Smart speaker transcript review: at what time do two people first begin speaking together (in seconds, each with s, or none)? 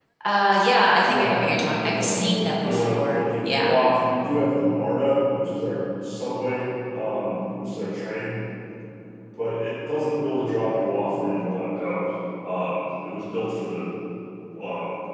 1.0 s